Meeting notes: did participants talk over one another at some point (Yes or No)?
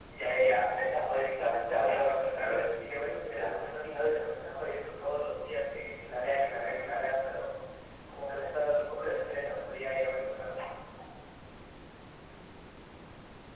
Yes